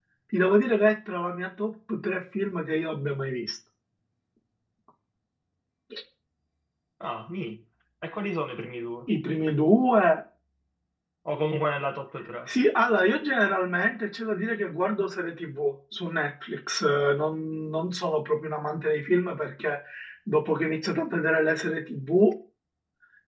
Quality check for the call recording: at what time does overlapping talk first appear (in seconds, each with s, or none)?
none